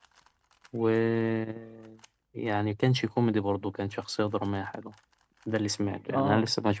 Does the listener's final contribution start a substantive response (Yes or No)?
Yes